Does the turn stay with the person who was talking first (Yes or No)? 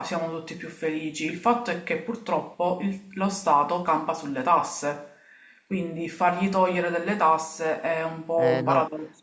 No